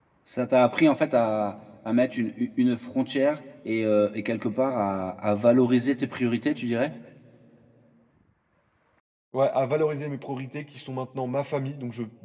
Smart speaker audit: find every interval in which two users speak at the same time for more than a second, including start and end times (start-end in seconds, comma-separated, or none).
none